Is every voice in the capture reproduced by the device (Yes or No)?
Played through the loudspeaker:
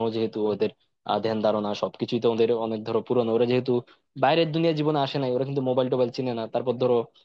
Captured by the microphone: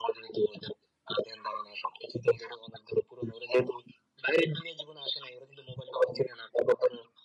Yes